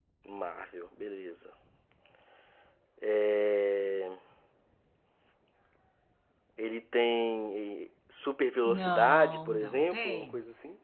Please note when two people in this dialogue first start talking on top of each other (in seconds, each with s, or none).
8.7 s